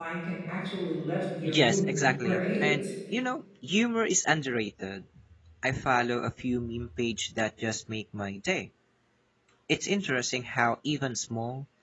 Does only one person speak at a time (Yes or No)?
No